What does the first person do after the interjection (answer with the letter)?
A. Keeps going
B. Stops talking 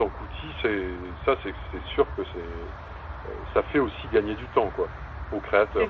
B